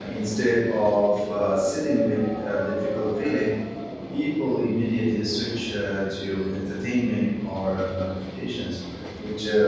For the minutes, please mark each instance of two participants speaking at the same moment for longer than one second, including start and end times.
none

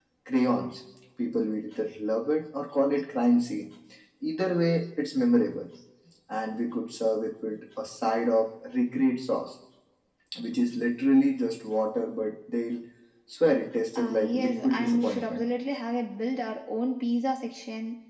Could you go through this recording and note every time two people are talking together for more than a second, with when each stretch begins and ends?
13.9-15.4

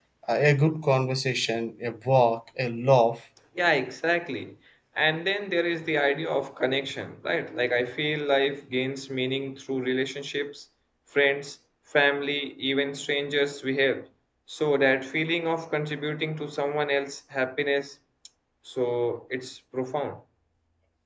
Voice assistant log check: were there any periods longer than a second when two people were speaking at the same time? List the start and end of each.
none

